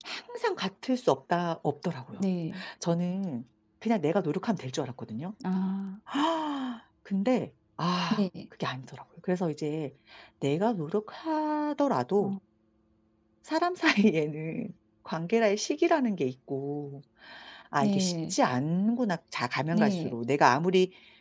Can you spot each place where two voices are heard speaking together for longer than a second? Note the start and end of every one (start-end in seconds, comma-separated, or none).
none